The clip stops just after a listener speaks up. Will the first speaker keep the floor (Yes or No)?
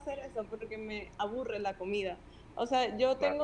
Yes